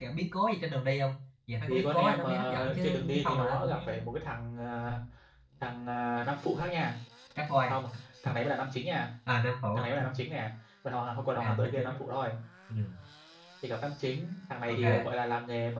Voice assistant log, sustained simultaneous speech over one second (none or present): present